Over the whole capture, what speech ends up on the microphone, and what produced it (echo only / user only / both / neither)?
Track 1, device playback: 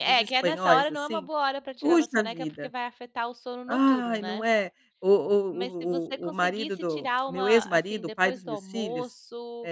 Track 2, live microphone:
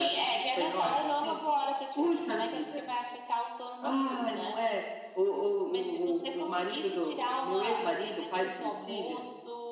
echo only